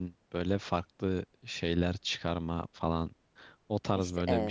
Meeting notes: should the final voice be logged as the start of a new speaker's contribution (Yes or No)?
No